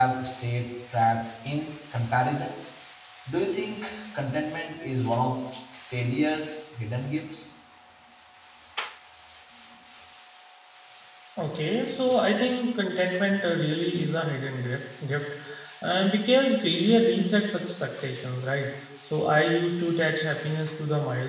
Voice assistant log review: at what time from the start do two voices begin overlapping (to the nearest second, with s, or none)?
none